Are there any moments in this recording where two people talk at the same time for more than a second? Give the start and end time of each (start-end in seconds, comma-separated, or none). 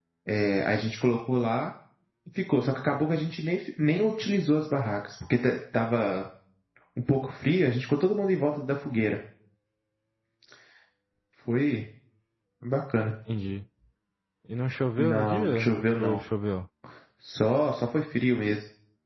15.0-16.2